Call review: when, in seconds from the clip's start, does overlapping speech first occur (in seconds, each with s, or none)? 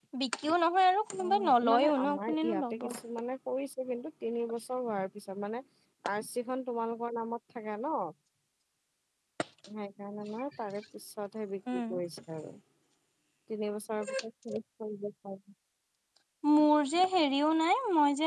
1.2 s